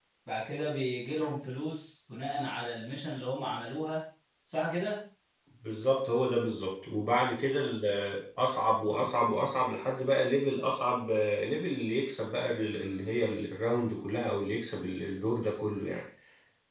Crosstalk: none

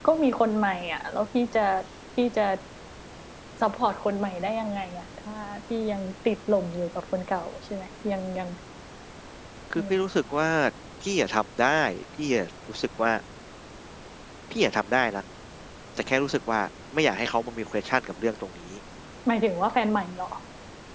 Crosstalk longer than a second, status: none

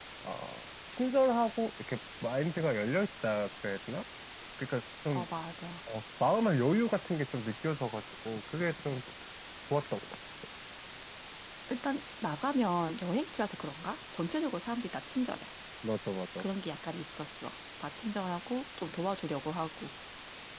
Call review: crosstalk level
none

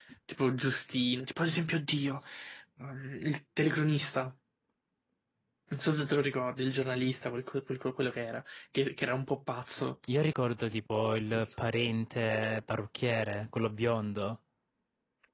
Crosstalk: none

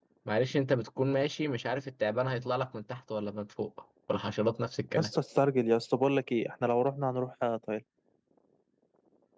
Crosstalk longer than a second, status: none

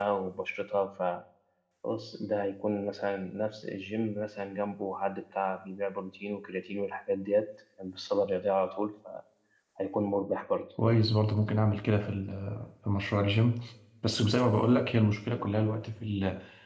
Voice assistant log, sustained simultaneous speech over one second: none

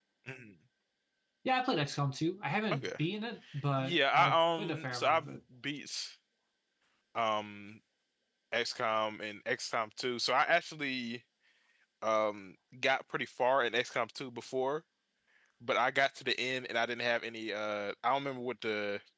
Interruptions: present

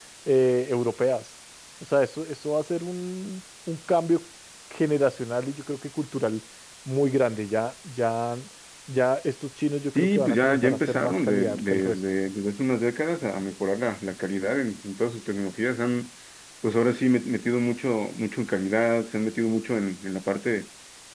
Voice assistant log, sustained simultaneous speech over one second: present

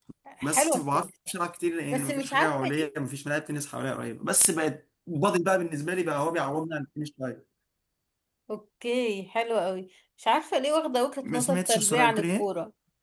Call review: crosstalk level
present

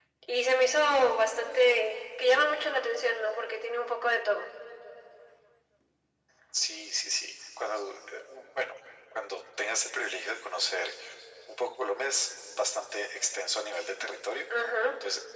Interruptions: none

